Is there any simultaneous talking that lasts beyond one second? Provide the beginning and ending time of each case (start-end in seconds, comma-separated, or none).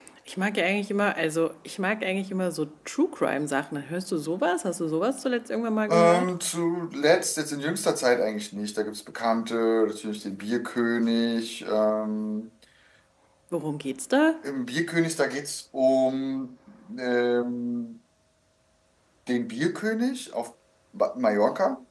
none